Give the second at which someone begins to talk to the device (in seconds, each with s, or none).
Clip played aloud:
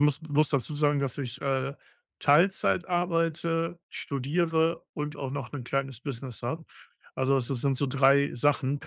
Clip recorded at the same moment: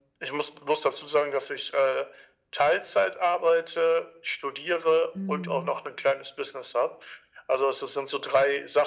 5.1 s